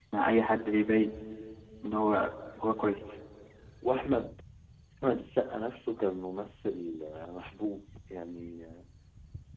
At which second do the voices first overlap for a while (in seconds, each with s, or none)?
none